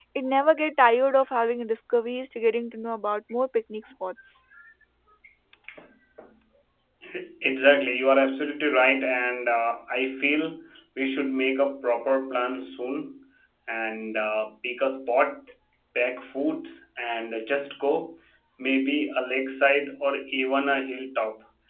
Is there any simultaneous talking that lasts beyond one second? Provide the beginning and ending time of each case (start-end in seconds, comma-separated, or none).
none